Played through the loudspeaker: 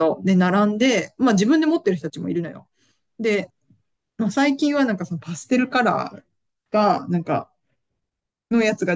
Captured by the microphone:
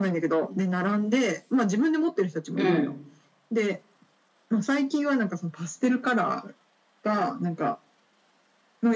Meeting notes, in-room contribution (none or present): present